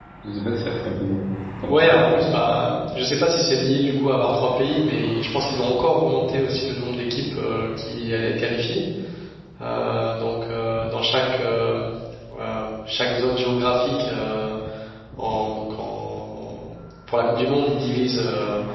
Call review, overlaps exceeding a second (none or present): none